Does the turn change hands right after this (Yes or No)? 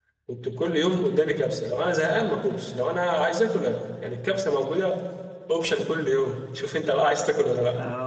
Yes